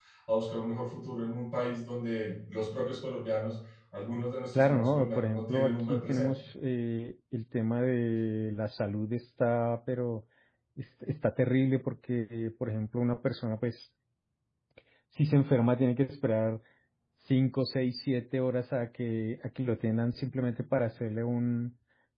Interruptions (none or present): present